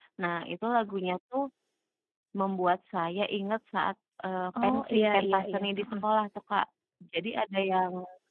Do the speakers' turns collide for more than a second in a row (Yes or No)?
Yes